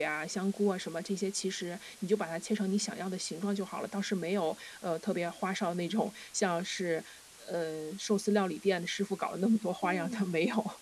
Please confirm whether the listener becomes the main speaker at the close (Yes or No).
Yes